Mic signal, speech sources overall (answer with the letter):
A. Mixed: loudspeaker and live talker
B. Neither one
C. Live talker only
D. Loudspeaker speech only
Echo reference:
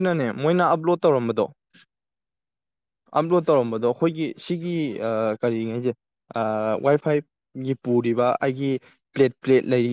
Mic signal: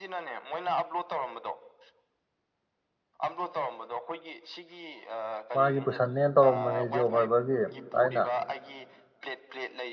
A